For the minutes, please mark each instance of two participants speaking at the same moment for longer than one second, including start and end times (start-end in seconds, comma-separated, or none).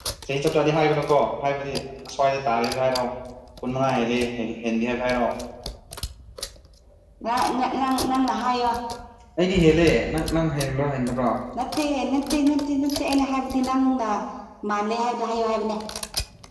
none